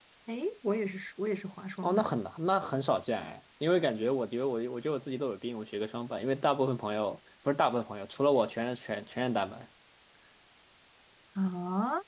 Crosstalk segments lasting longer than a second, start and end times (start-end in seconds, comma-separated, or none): none